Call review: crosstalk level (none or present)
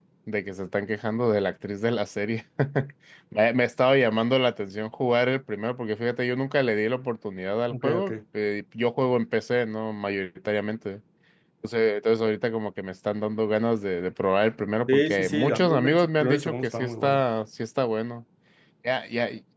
present